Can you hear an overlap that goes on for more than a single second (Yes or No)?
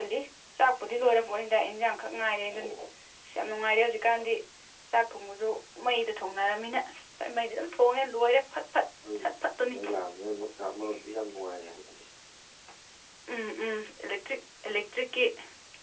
No